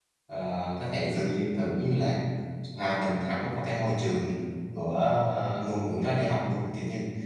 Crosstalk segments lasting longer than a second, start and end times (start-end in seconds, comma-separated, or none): none